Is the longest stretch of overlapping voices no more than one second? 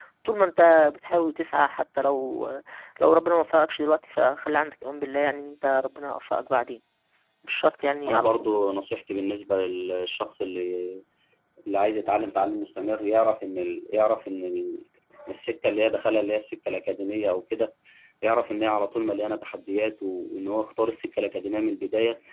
Yes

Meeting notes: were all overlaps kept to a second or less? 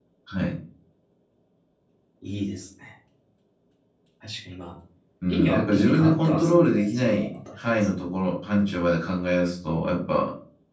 No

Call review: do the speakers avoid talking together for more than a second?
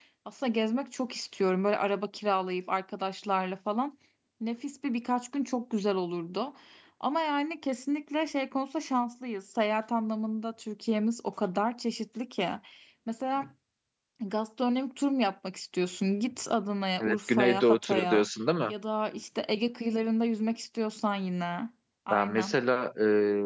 No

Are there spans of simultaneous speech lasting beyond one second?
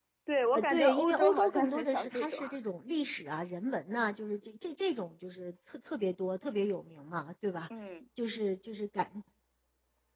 Yes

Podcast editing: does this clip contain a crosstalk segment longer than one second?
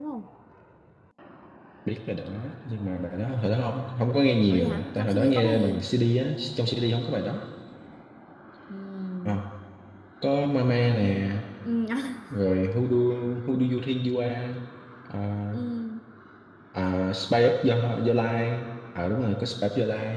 Yes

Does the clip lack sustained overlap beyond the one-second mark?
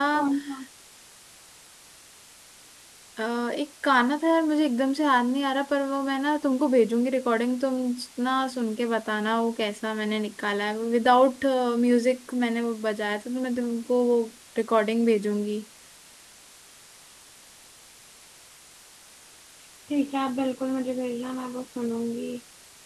Yes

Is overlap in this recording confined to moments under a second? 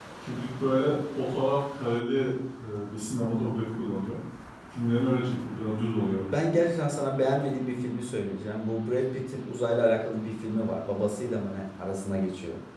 Yes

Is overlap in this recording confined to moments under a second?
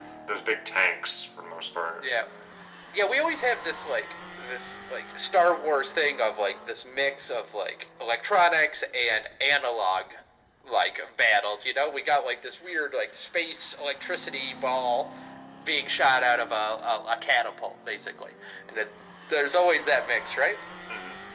Yes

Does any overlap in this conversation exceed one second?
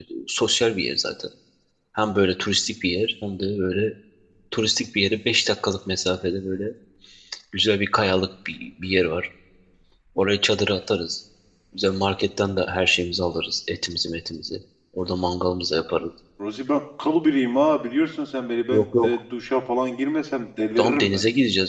No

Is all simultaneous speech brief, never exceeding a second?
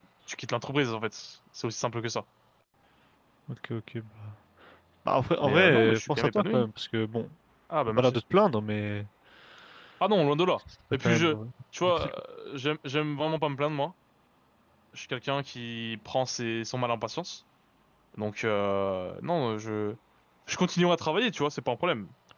No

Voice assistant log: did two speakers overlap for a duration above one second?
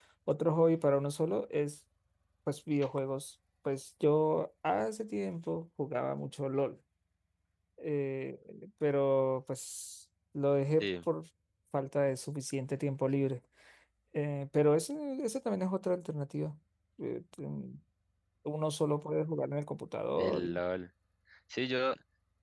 No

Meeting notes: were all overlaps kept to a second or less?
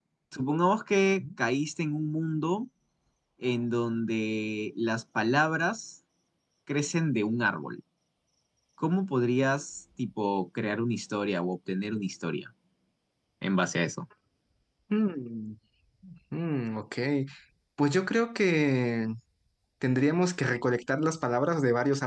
Yes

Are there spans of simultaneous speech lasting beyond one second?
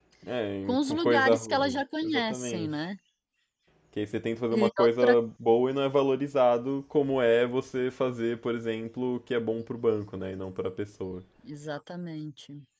Yes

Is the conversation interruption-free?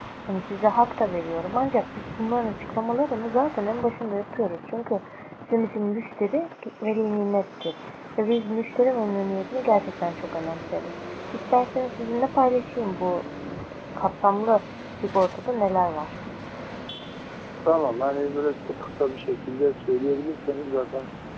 Yes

